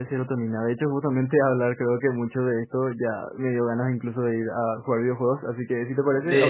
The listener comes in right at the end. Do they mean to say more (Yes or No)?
Yes